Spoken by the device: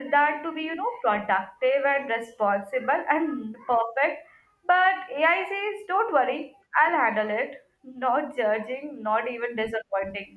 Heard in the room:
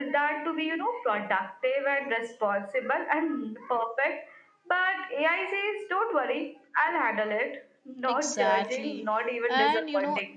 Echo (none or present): present